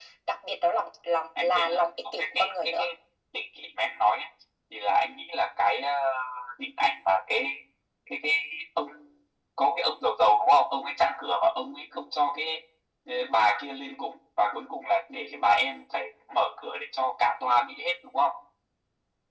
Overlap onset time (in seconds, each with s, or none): 1.4 s